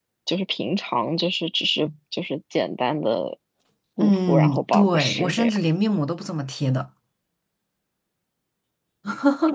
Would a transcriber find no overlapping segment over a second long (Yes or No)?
No